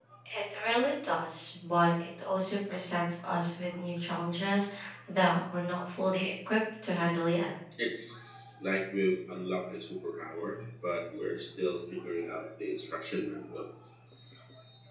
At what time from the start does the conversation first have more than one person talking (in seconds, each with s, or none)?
none